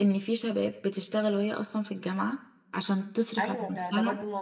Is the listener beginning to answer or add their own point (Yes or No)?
Yes